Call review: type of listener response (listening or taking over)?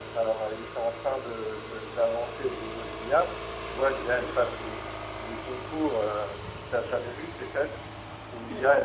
listening